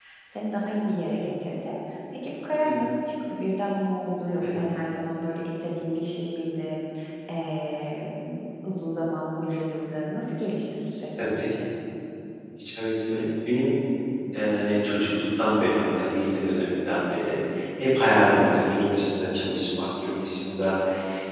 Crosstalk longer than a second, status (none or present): none